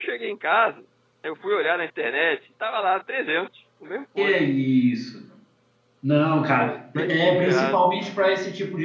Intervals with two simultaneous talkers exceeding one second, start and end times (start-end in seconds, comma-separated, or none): 6.5-7.8